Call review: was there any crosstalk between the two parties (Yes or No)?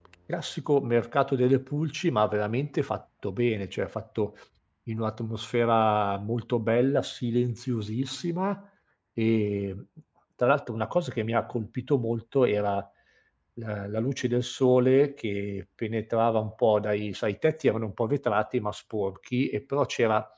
No